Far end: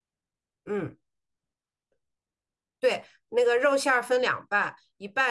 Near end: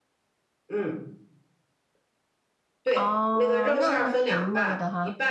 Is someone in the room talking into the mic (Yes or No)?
Yes